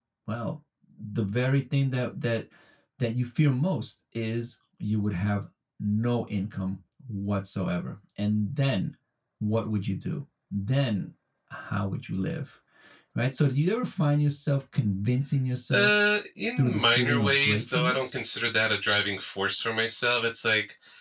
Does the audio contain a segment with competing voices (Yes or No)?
Yes